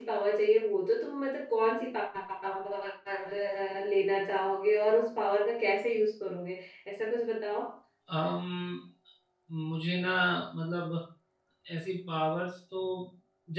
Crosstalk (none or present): none